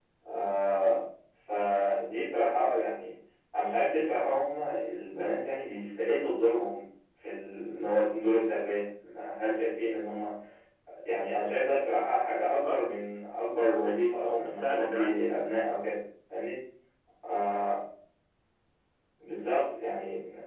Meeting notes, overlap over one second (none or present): present